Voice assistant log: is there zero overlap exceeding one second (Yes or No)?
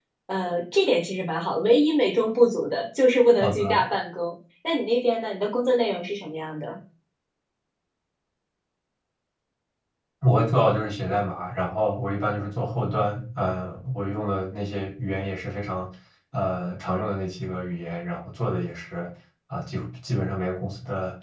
Yes